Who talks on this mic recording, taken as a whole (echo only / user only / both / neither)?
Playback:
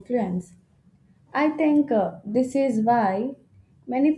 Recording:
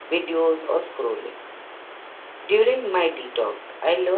user only